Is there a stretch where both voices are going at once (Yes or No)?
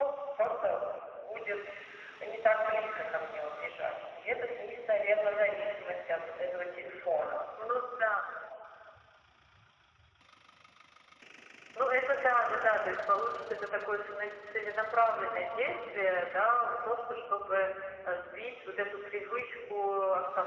No